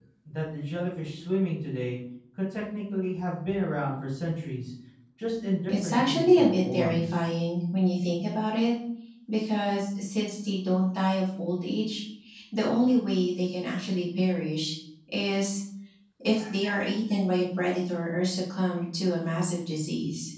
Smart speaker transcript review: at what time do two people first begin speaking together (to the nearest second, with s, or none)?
6 s